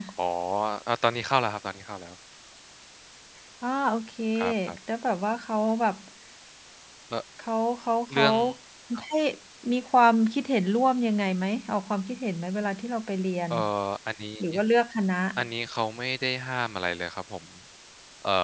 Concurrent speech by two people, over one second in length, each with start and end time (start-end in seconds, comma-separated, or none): none